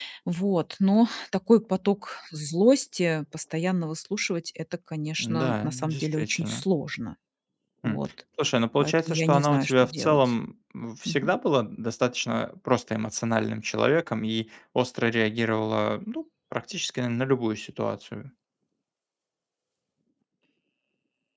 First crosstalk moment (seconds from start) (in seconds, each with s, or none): 5.2 s